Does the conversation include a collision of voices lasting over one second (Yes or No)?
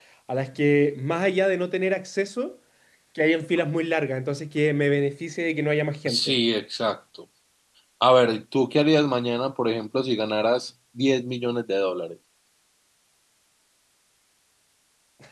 No